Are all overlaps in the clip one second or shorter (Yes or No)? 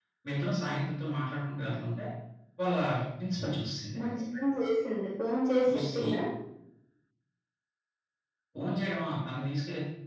Yes